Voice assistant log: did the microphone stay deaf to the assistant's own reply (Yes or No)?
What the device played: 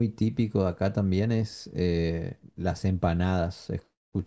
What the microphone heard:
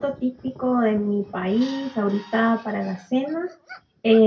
Yes